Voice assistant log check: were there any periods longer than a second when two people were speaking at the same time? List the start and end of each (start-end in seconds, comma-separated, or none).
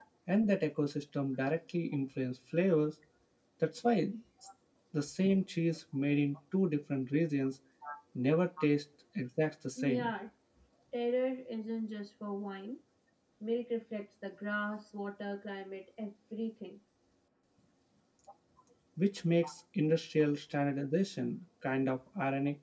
none